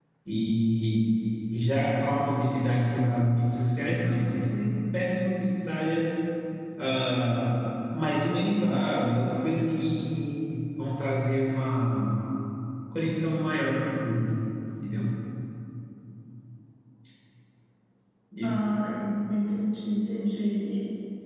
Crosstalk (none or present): none